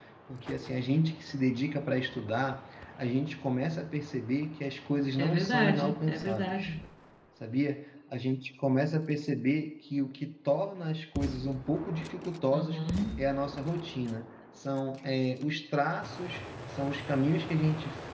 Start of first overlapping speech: 5 s

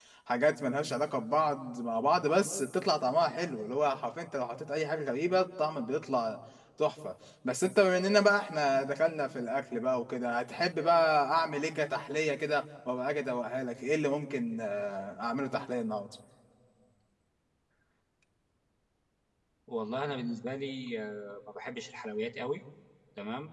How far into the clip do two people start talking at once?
none

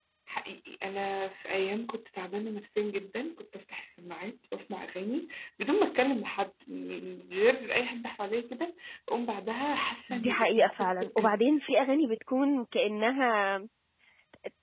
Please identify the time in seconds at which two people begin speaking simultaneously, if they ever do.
10 s

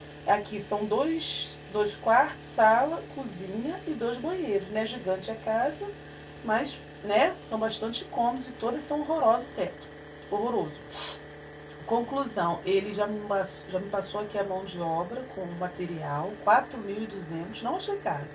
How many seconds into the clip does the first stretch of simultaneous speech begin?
none

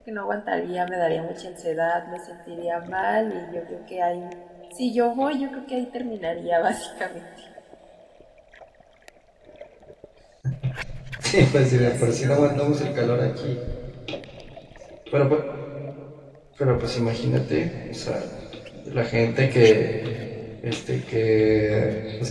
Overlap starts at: 12 s

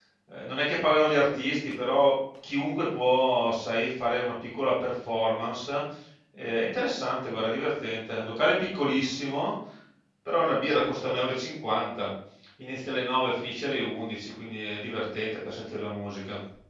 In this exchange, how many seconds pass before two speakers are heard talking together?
none

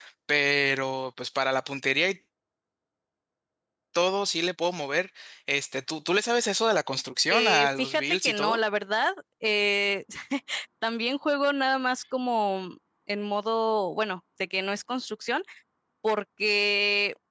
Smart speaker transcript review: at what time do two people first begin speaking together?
7 s

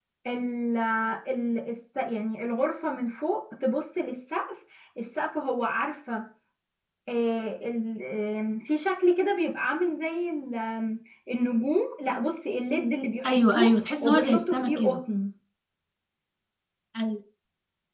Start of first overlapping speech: 13 s

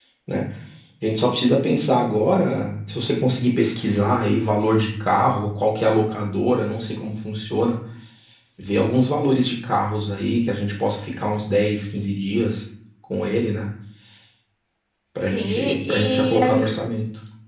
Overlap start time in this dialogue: 15 s

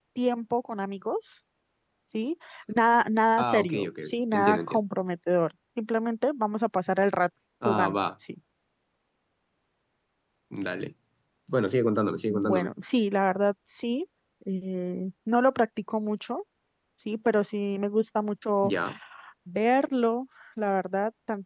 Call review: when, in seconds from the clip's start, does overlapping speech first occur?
3 s

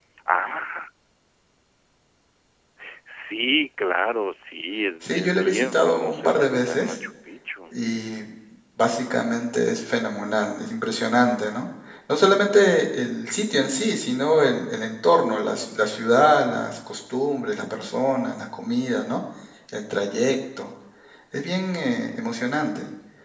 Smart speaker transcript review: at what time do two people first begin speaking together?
5 s

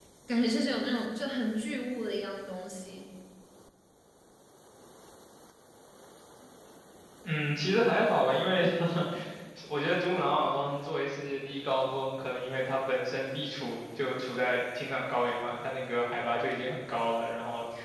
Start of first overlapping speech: none

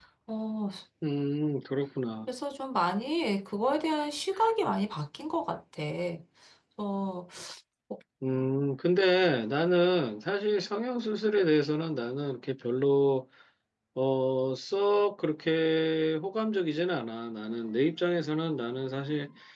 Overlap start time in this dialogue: none

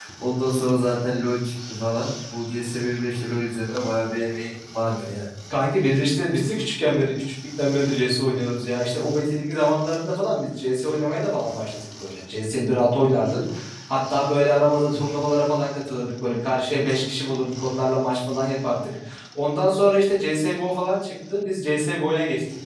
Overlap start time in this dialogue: none

